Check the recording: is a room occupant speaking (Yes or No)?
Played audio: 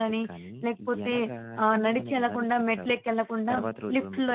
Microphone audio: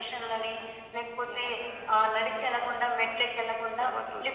No